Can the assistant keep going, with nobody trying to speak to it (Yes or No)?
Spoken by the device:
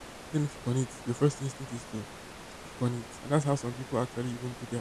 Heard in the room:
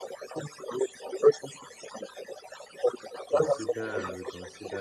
No